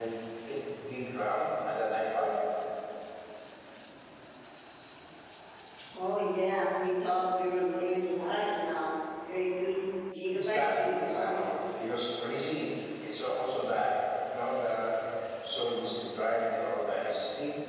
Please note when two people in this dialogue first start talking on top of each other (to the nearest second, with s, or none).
10 s